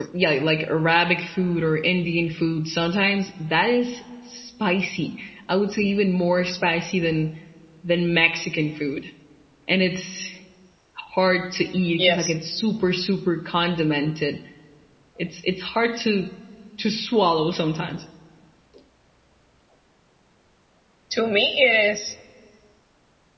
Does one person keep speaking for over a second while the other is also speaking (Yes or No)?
No